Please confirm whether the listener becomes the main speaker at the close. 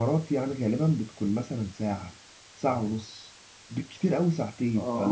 Yes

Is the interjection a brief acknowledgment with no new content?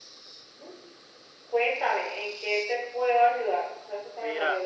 No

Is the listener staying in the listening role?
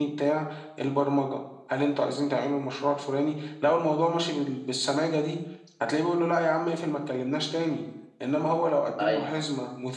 Yes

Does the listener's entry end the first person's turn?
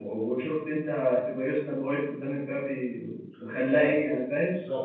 Yes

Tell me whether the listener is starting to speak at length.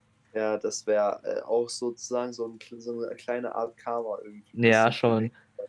Yes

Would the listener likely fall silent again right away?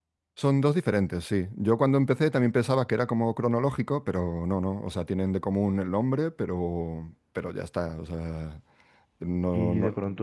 No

